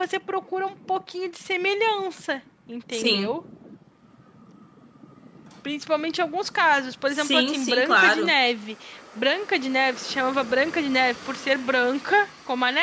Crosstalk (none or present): present